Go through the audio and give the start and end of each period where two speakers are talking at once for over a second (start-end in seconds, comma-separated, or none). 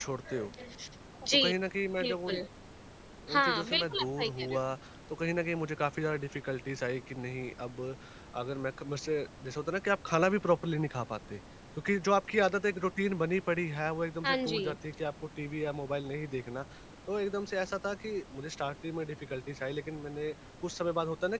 3.3-4.6